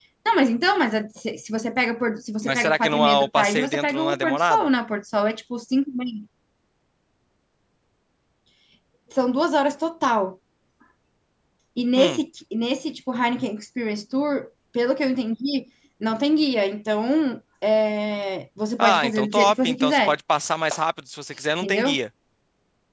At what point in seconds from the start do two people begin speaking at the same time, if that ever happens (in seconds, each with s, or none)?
2.4 s